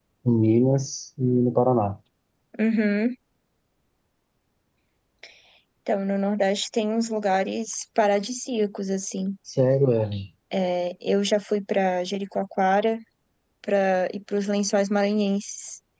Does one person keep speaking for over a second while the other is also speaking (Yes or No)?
No